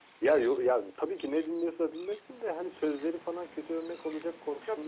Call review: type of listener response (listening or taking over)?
listening